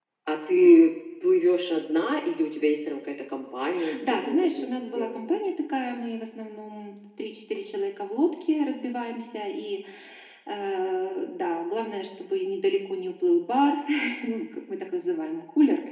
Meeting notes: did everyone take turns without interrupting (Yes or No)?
No